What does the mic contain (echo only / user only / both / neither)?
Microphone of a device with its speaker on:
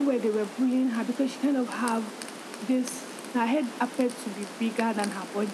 echo only